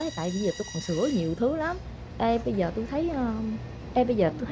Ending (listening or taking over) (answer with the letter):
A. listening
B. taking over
A